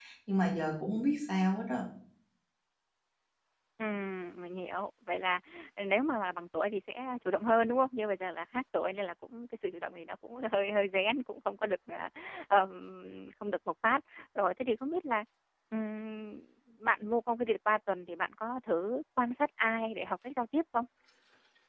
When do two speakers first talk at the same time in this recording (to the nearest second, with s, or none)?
none